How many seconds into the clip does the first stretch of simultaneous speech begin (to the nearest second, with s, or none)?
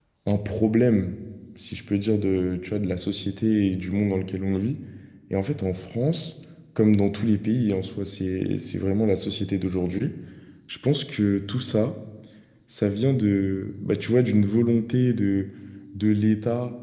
none